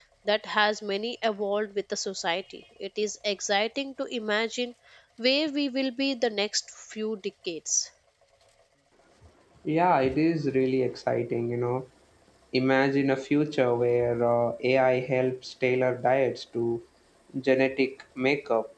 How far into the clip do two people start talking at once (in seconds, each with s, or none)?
none